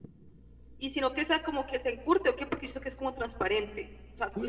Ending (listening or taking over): taking over